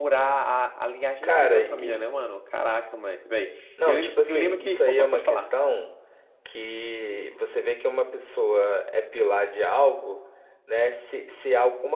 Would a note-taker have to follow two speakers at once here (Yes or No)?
Yes